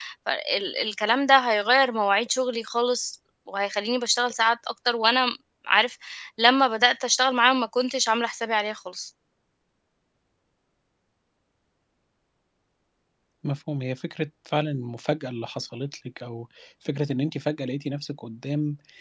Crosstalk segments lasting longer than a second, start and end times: none

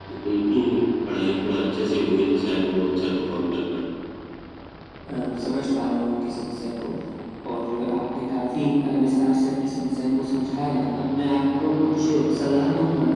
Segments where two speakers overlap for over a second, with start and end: none

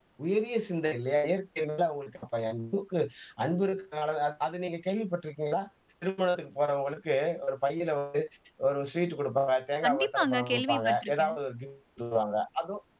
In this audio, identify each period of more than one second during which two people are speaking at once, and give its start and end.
9.8-11.4

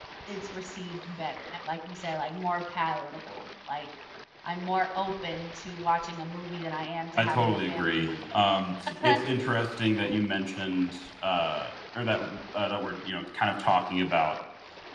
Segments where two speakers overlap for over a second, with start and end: 7.2-8.4

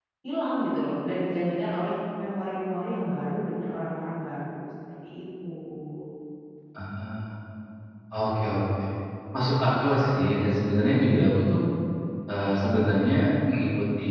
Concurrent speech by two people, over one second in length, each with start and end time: none

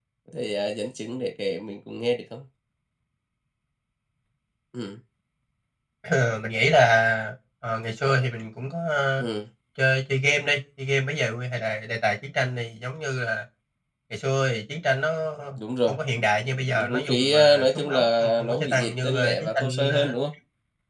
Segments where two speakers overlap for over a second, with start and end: 16.8-20.1

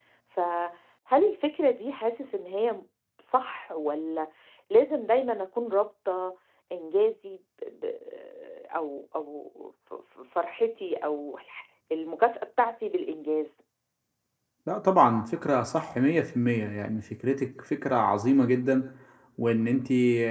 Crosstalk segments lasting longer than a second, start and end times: none

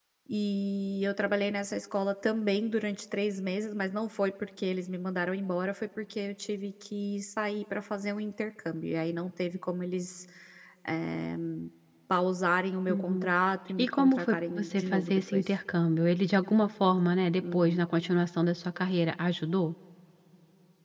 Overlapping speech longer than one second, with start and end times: 13.8-15.5

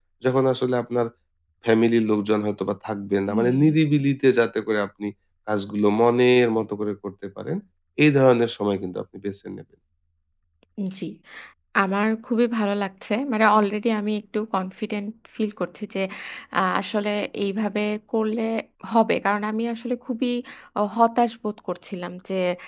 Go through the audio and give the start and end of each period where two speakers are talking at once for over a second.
none

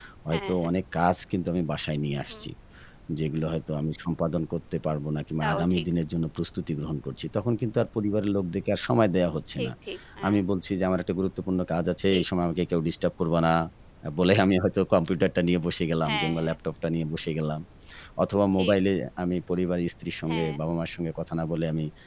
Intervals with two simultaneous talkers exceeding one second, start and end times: none

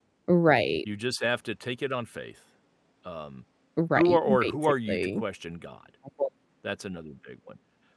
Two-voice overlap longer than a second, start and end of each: 4.0-5.2

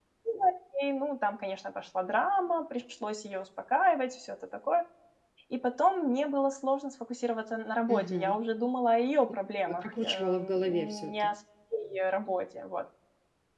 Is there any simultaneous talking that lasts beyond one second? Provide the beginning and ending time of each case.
9.7-11.3

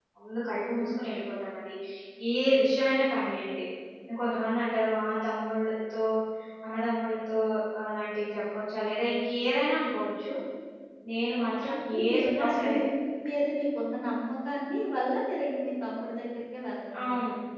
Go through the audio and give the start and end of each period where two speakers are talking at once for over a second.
11.4-12.8

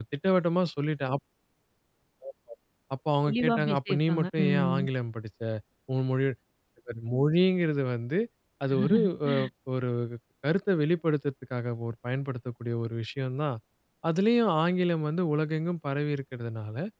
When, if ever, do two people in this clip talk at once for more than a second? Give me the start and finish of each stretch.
3.2-4.8

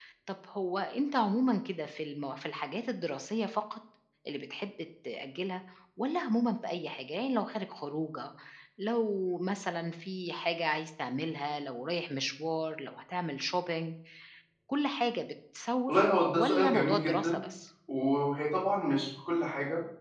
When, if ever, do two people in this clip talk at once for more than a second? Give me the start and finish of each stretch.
15.9-17.4

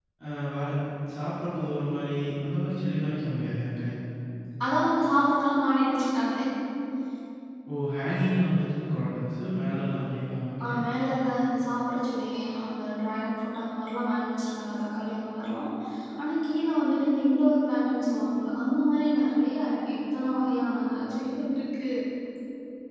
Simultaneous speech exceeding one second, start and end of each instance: none

